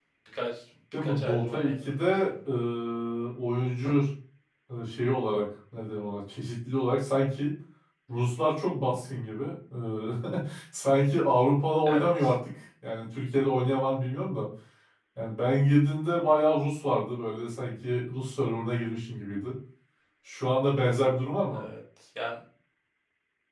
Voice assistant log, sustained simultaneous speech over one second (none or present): present